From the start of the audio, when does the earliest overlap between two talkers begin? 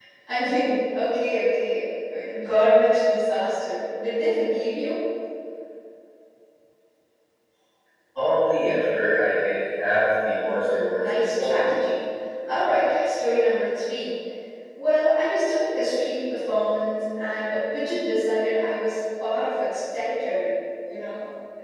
10.4 s

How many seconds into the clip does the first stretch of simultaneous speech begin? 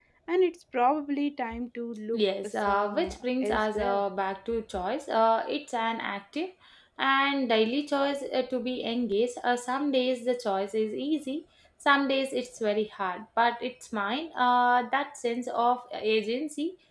2.1 s

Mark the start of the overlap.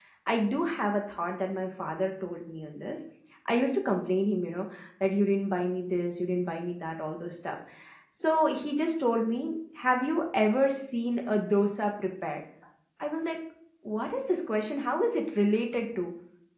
none

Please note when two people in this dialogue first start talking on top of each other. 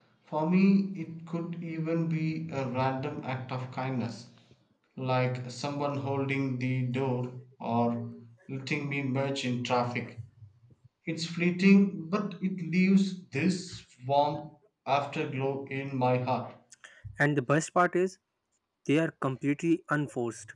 none

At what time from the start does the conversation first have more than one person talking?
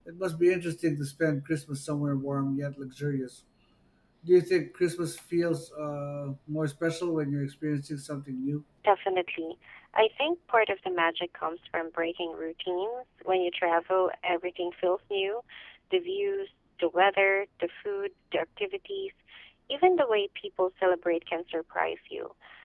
none

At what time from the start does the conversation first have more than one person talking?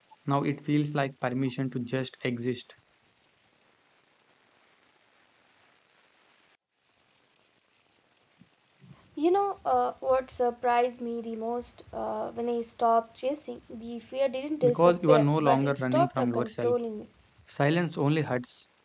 14.6 s

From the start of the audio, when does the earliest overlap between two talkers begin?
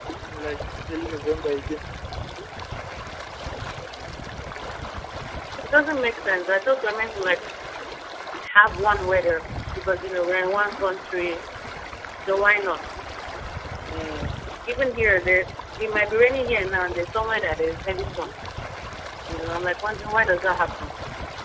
none

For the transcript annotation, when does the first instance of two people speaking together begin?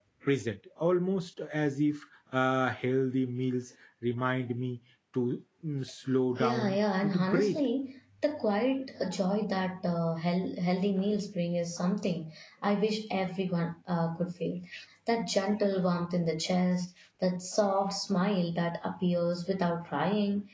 6.4 s

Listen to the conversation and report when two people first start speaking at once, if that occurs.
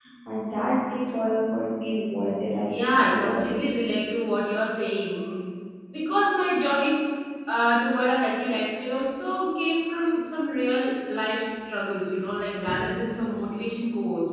2.6 s

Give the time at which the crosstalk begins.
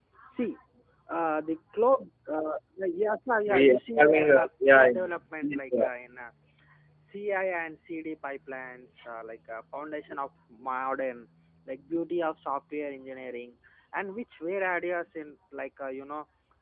3.5 s

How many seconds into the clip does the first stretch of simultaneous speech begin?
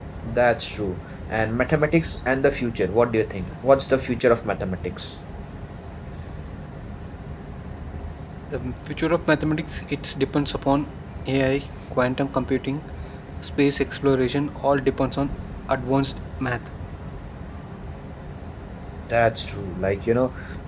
none

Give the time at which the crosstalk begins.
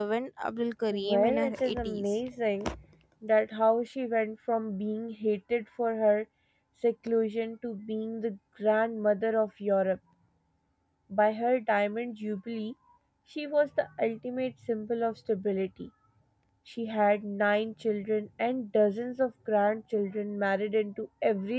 0.9 s

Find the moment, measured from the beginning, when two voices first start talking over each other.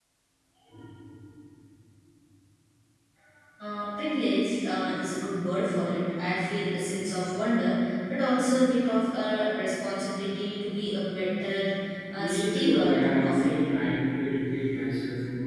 12.2 s

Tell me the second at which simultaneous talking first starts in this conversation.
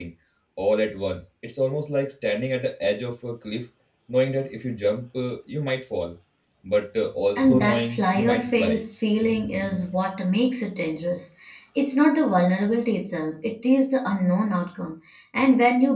7.3 s

